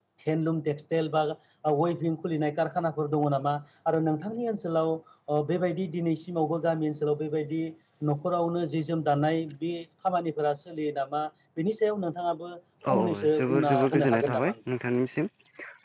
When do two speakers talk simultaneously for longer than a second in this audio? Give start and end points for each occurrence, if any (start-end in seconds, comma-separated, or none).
12.9-14.6